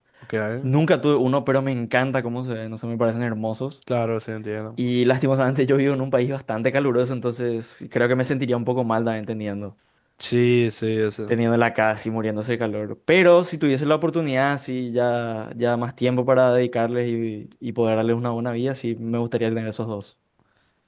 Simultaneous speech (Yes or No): No